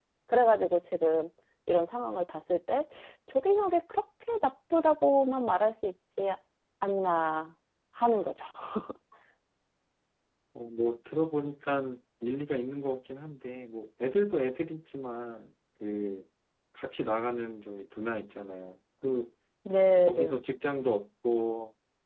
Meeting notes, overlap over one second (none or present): none